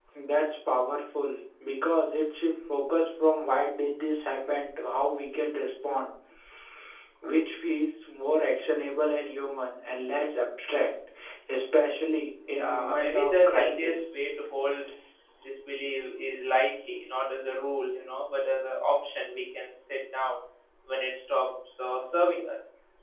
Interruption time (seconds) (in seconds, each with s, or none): 12.5 s